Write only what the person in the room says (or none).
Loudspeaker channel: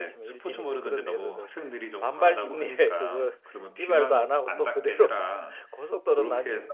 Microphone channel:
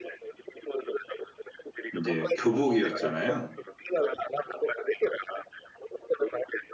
이제 교복이었잖아요.